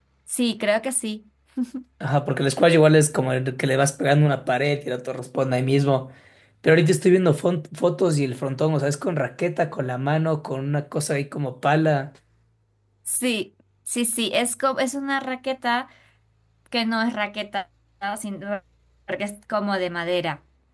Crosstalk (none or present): none